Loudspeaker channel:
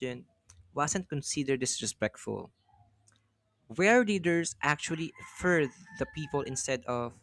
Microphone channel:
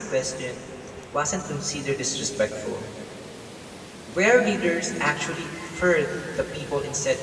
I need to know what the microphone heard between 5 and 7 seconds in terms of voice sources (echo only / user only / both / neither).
echo only